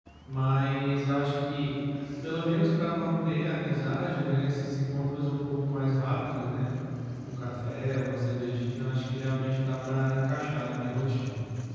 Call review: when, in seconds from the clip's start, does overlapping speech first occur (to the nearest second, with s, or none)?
none